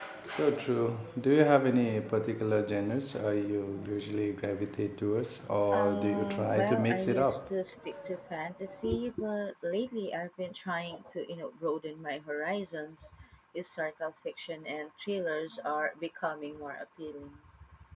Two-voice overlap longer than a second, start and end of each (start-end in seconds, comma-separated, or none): 5.7-7.5